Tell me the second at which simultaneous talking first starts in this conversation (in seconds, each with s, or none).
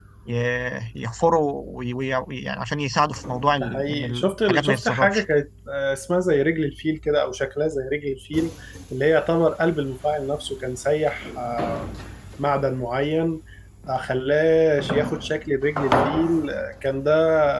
3.6 s